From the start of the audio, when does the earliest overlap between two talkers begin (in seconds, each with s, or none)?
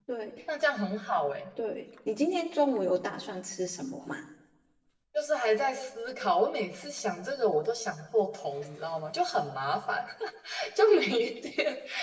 none